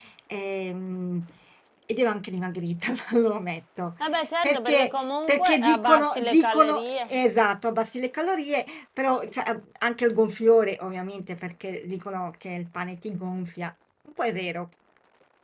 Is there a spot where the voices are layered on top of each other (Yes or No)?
Yes